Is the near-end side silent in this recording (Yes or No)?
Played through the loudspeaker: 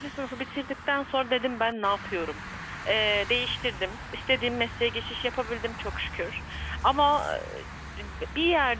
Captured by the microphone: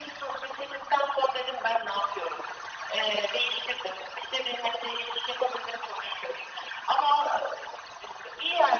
Yes